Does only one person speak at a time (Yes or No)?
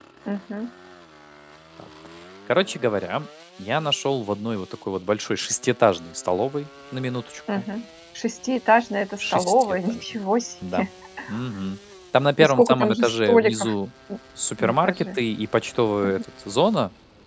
No